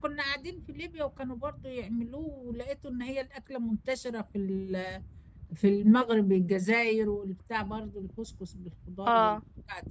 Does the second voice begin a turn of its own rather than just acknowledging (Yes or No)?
No